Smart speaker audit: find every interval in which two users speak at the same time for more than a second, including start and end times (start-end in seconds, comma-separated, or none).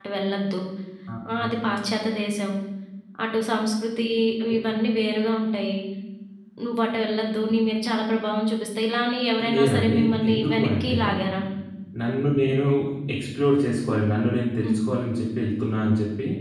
9.5-11.0